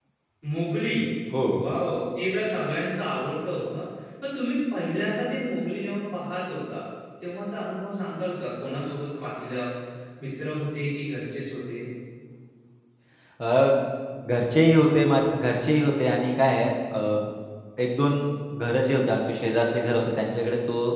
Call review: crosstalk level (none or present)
none